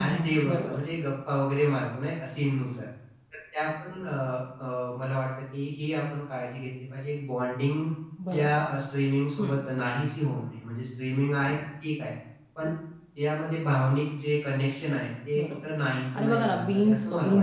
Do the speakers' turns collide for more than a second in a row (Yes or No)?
Yes